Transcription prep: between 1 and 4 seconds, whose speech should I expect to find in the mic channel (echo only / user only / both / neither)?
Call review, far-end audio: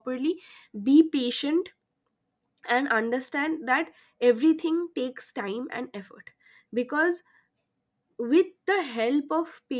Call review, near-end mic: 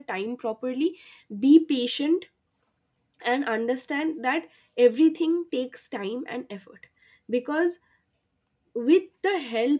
echo only